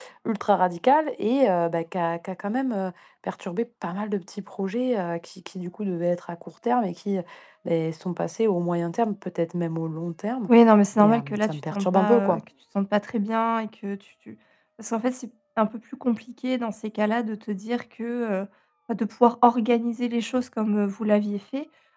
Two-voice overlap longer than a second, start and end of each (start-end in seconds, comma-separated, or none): 11.0-12.4